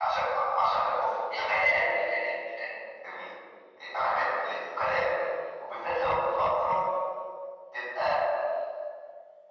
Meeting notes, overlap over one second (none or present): none